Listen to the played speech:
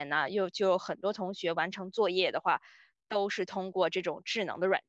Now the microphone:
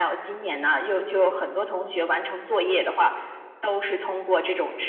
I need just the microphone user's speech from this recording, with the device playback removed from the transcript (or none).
none